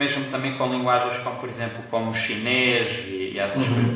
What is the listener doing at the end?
taking over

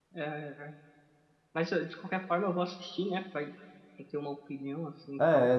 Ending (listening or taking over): taking over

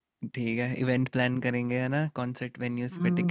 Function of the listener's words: taking over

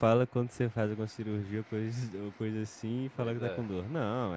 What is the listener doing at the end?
listening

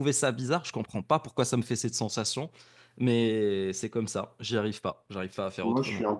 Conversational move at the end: taking over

